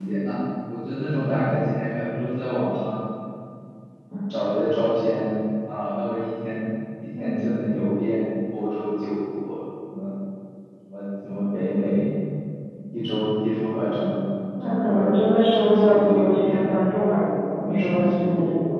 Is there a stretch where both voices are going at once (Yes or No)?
Yes